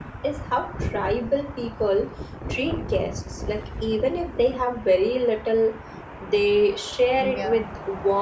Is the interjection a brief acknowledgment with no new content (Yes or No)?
Yes